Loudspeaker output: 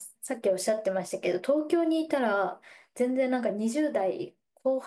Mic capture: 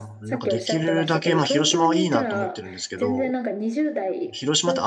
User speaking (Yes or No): Yes